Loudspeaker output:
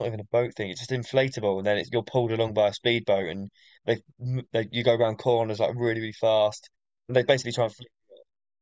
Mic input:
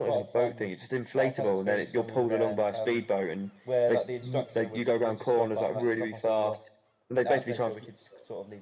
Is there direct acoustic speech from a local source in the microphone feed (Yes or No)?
Yes